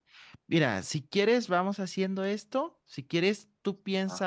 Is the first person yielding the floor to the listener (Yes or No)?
No